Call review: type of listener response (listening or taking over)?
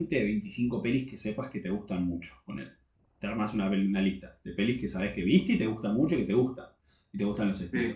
listening